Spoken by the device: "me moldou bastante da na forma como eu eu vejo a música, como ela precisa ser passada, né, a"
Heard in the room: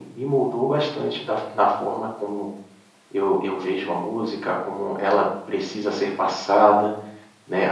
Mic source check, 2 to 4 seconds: echo only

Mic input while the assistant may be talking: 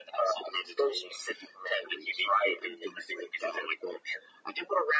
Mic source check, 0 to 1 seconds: echo only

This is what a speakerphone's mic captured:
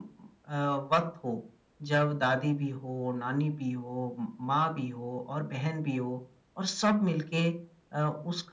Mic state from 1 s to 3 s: echo only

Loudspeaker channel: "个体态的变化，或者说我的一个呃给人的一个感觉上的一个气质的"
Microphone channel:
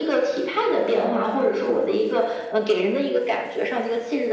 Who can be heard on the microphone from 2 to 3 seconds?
echo only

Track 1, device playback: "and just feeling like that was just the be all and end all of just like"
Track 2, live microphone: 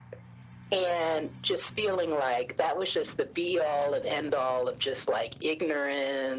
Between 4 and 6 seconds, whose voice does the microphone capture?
echo only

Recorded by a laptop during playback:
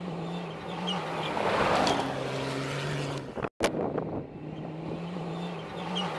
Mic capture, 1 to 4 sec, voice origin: neither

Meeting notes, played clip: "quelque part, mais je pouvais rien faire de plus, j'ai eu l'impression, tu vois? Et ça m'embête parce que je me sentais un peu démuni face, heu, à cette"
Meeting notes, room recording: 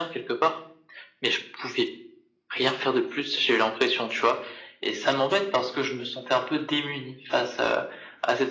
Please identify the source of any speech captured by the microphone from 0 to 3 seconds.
echo only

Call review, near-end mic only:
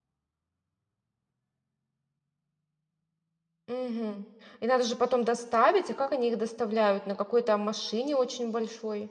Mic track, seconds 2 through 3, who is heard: neither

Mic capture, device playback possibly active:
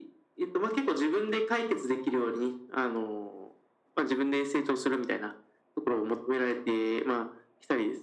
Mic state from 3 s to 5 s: echo only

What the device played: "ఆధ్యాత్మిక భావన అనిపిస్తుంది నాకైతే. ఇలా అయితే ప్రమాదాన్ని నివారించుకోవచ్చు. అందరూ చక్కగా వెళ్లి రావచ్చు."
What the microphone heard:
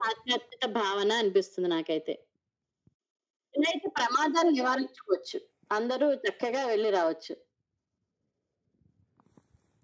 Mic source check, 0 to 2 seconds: echo only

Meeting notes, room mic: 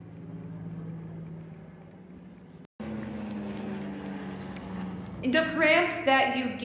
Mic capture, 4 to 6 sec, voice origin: user only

